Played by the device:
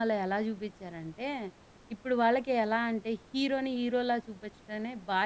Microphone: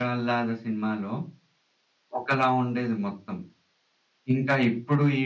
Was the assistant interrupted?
Yes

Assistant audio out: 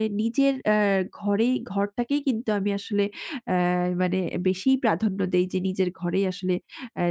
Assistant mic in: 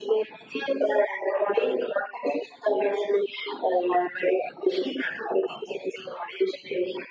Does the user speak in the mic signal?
No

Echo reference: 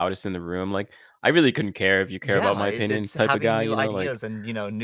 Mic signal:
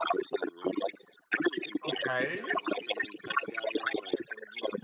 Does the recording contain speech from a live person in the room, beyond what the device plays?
Yes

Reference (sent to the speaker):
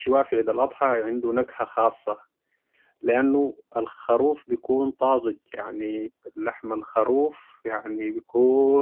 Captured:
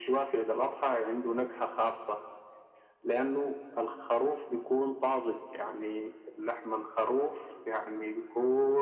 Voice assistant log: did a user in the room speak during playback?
No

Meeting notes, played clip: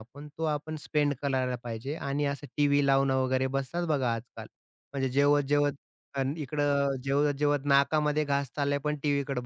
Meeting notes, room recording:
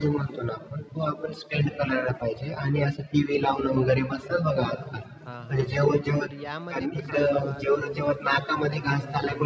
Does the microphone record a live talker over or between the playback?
Yes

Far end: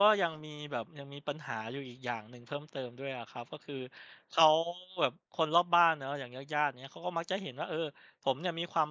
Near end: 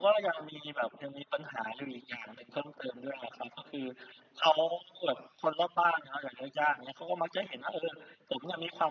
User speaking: No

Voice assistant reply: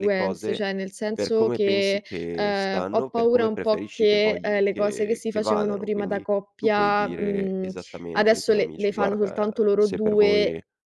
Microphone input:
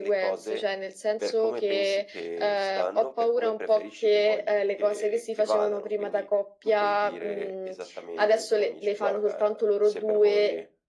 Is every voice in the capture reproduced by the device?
Yes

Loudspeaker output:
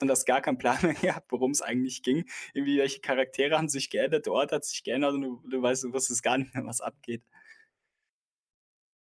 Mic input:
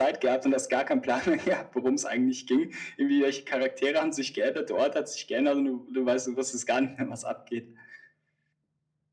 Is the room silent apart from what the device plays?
Yes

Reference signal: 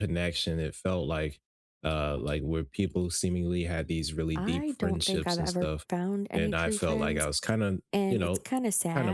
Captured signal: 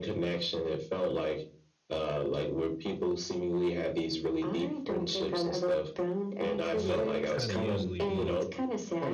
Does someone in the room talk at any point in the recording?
Yes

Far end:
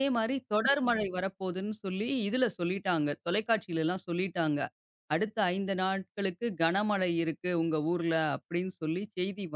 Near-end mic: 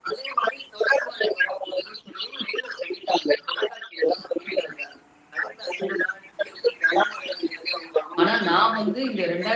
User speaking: Yes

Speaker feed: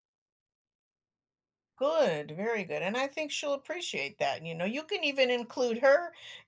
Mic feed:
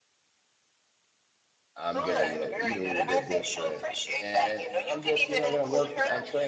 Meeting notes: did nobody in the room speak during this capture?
No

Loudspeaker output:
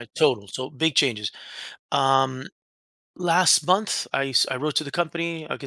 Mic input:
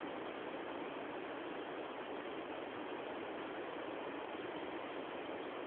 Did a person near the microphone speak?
No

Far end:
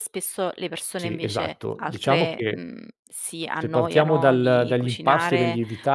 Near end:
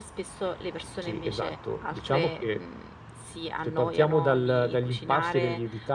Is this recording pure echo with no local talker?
Yes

